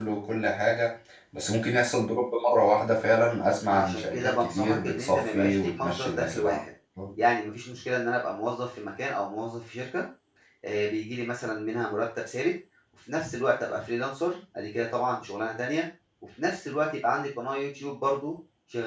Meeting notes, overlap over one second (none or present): present